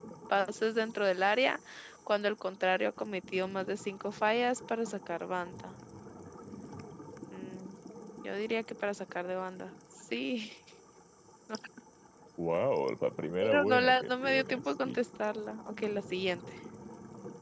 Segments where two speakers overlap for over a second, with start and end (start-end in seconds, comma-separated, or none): 13.4-15.0